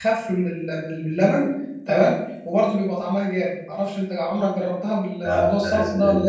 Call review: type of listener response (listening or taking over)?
taking over